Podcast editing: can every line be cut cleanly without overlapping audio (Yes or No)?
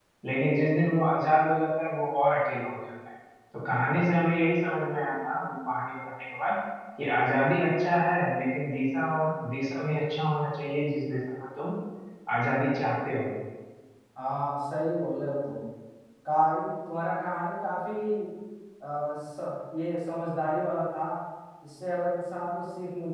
Yes